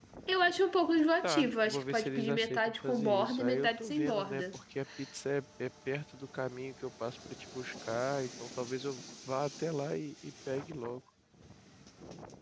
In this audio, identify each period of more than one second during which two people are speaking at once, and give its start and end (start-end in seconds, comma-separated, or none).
1.2-4.4